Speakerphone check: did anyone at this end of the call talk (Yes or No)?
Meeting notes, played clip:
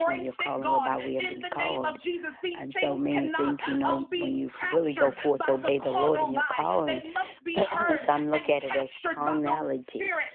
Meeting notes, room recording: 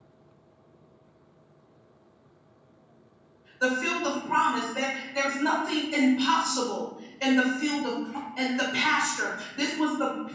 Yes